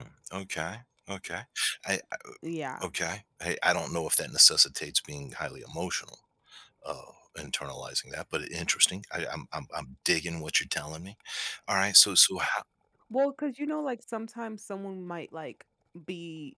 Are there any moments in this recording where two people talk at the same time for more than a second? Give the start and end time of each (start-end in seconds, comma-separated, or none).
none